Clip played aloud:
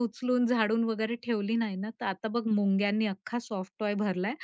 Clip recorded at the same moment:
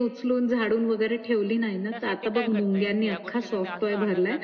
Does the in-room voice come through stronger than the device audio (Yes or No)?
No